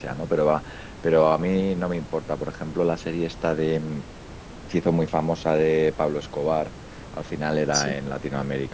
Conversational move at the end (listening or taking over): listening